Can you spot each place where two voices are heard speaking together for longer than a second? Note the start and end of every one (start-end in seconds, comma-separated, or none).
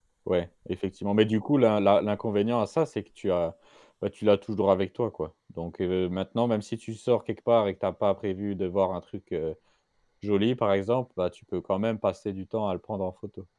none